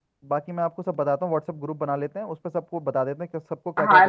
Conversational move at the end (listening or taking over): taking over